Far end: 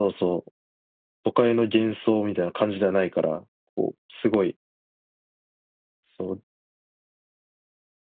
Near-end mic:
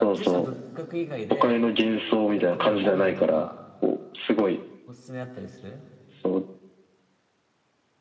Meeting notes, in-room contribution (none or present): present